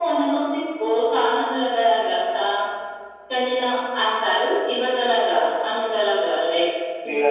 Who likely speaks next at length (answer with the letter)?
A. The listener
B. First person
B